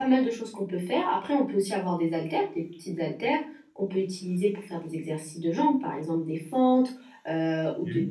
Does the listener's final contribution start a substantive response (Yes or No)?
No